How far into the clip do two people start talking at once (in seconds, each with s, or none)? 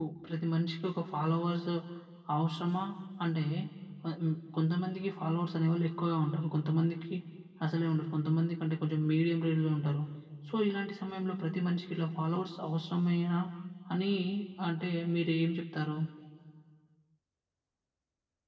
none